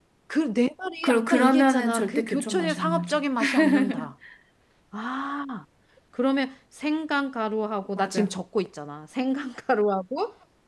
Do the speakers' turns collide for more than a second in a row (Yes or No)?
Yes